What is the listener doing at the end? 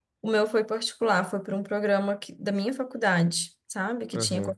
taking over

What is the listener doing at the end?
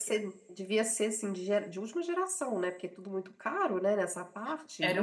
taking over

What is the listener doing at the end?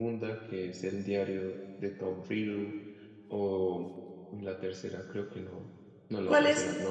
taking over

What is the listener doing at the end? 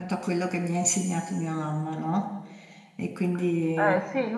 taking over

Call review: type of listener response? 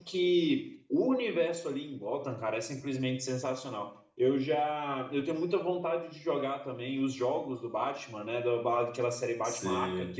listening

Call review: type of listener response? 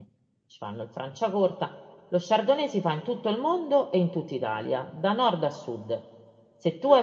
listening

